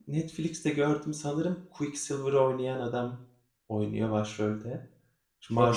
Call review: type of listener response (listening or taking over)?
taking over